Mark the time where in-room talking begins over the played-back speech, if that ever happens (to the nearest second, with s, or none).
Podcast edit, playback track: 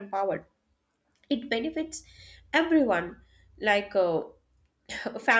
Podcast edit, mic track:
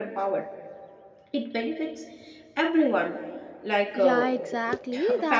4 s